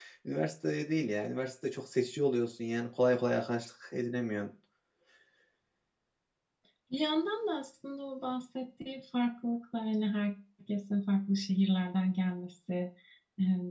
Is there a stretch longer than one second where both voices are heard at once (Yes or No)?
No